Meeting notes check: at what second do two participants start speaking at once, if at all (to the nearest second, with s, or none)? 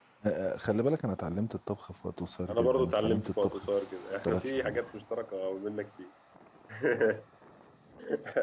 2 s